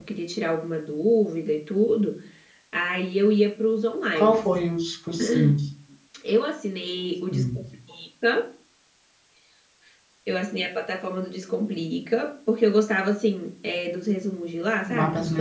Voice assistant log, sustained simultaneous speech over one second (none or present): none